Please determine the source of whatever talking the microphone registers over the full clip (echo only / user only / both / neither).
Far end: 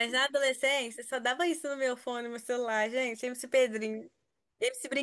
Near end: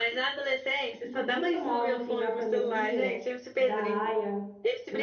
both